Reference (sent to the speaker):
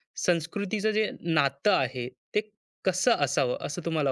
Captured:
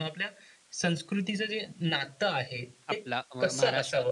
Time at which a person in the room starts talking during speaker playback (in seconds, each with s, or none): 2.9 s